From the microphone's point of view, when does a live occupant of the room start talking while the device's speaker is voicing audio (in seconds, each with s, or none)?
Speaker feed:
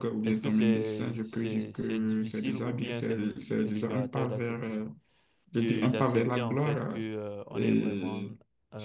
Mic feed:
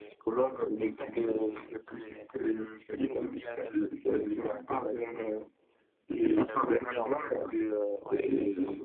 none